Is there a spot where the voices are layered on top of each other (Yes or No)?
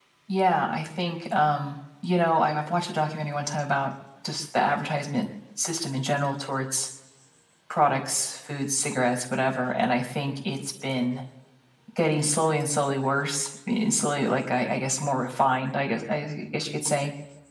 No